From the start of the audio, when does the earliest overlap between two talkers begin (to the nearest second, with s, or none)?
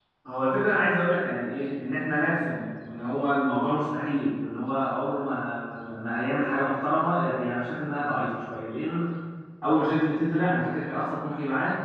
none